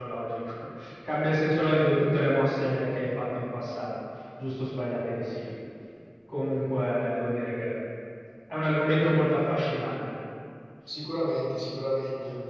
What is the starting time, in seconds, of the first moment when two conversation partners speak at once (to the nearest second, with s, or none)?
none